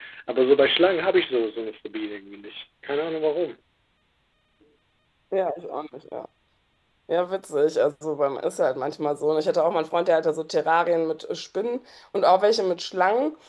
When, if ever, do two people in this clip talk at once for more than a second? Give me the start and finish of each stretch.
none

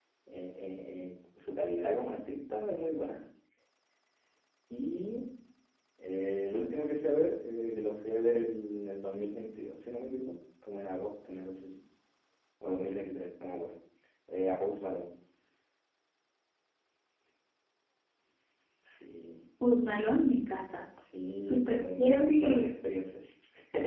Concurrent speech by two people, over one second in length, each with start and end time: 21.4-22.7

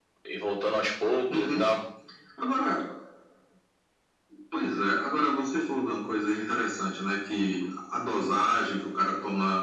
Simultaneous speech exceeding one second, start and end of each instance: none

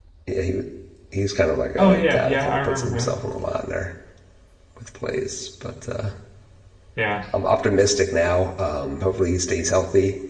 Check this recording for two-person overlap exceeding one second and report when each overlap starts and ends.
1.8-3.2

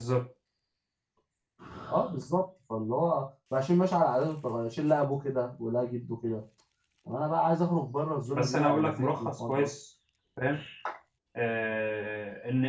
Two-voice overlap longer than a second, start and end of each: 8.3-9.7

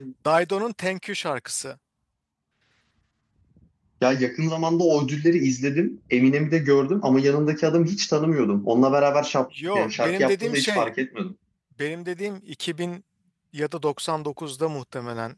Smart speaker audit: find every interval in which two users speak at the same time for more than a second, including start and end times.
9.7-10.9

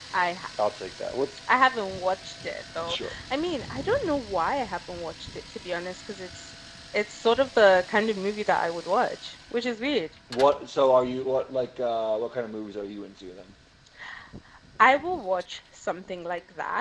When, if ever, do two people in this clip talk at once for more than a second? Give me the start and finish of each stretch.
none

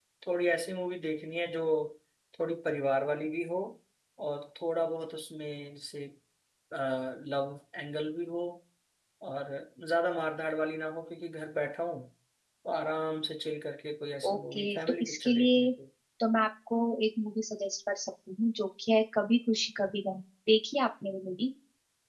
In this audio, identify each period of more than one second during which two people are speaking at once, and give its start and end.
14.2-15.7

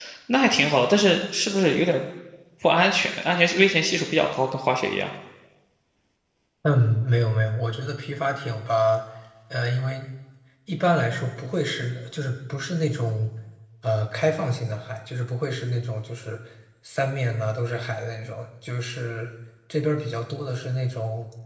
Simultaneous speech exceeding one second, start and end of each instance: none

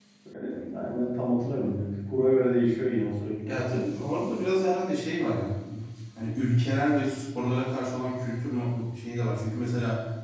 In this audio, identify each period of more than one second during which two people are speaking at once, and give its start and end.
none

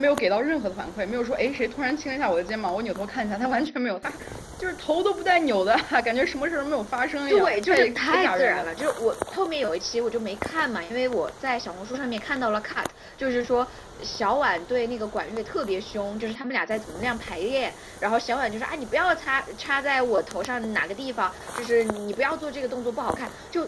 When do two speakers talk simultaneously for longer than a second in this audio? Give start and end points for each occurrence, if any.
7.3-8.7

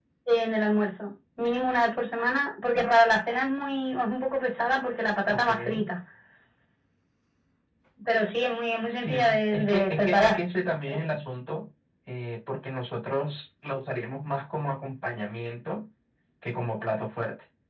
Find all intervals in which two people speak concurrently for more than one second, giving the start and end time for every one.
8.9-10.4

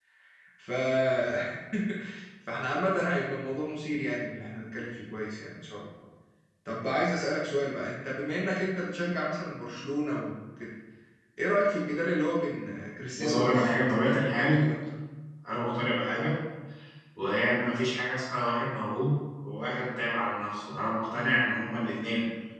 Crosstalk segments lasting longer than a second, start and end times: 13.1-14.6

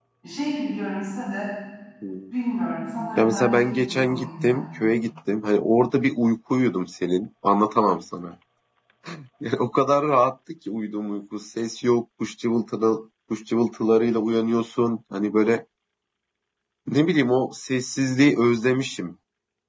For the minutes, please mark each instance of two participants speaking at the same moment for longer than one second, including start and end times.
3.2-4.6

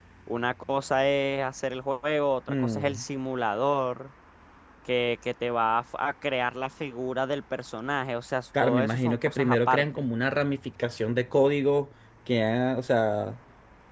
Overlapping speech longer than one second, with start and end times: 8.6-10.1

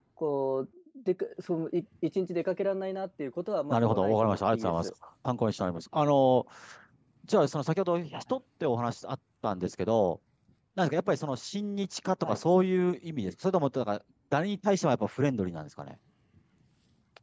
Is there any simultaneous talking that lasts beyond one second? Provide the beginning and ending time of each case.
3.7-4.9

